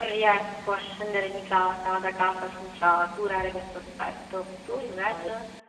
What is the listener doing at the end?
taking over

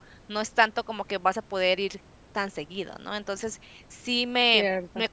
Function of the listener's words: listening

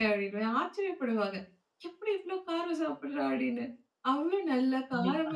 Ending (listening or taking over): listening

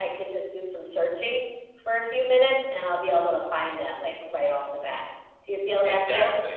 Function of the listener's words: taking over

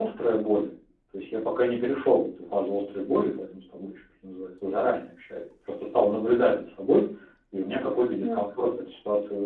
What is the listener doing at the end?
listening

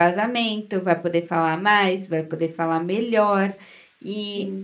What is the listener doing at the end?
listening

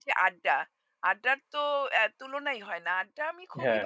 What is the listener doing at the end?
listening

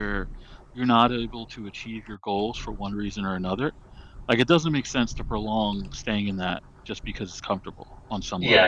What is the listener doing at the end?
taking over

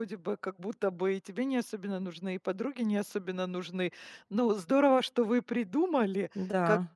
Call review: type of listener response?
listening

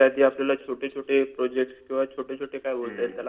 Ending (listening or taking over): listening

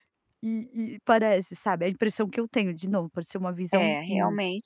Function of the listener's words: taking over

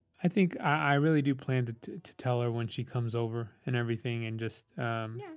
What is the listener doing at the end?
taking over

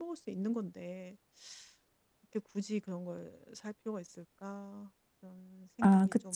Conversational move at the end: taking over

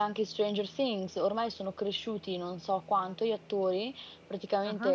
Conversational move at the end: listening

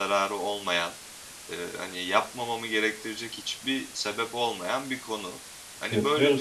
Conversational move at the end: taking over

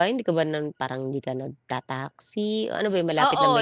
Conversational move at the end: taking over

